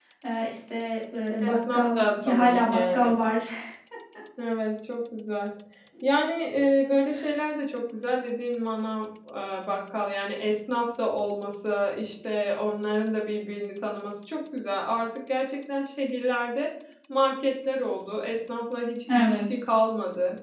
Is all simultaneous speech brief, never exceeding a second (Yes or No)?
No